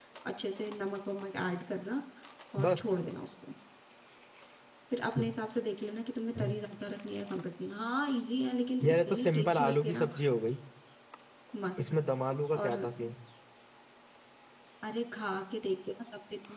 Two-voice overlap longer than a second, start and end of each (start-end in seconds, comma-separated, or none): 8.8-10.1